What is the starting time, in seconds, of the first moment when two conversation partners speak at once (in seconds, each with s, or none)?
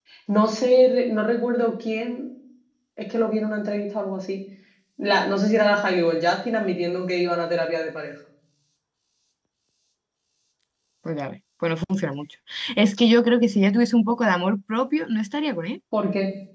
none